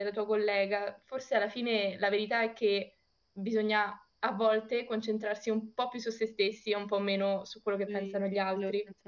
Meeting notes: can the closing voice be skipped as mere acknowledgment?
No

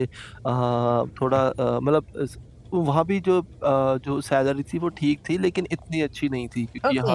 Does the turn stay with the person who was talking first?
Yes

